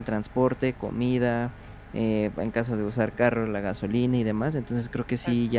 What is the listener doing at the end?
listening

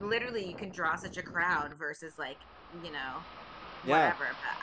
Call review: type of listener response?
listening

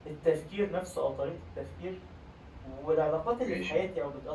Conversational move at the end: listening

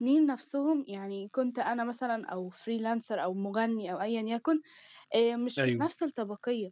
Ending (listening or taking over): listening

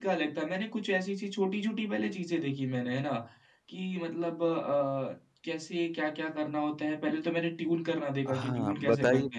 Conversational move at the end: taking over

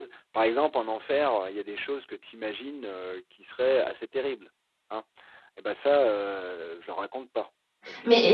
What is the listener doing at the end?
taking over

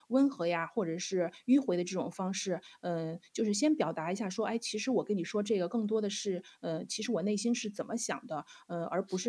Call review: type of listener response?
listening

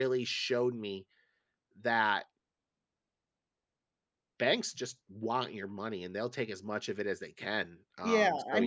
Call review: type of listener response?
taking over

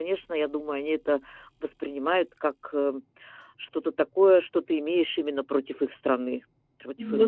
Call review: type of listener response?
taking over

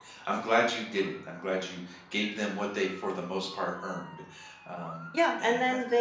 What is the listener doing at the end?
taking over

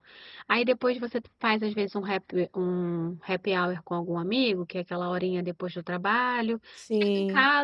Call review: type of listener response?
listening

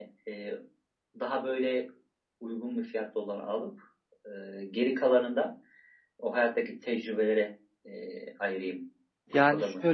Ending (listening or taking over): taking over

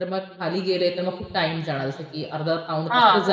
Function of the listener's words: listening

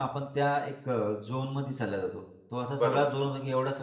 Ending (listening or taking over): listening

